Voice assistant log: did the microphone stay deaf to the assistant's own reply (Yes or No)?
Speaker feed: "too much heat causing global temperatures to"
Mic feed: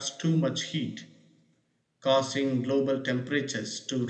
No